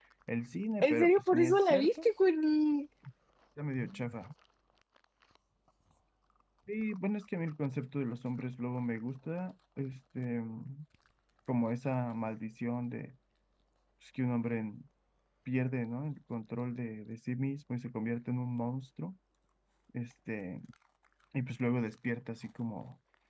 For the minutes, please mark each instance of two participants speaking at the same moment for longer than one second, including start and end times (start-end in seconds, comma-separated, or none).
0.8-2.0